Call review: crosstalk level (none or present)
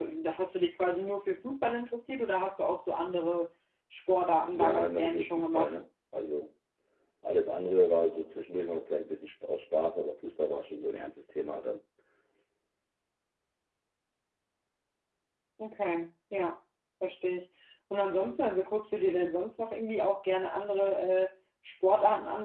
present